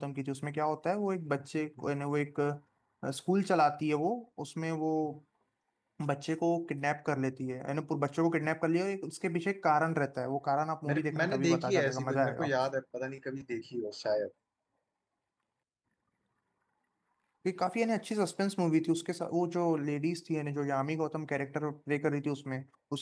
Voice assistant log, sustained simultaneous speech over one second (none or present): present